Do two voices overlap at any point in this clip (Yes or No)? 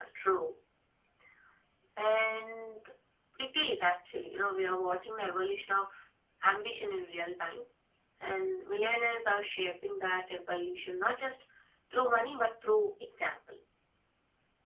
No